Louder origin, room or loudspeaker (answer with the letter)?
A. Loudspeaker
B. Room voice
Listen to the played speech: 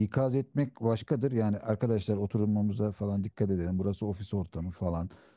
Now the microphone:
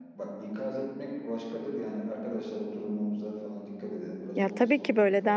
B